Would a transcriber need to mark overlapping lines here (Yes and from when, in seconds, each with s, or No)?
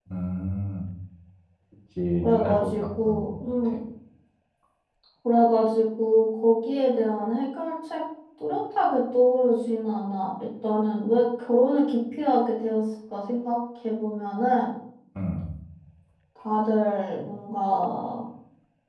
Yes, from 2.2 s